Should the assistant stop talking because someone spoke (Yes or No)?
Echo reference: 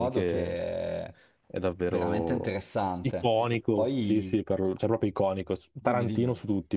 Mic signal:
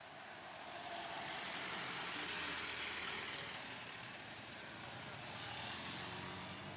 No